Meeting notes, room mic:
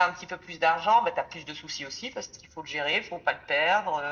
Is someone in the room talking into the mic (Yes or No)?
No